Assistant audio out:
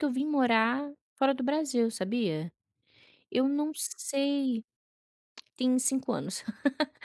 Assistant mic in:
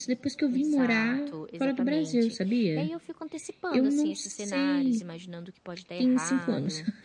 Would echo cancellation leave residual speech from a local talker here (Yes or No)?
Yes